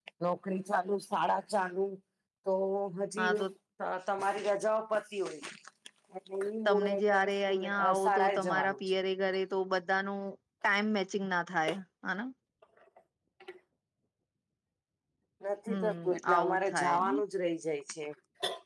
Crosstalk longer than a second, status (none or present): present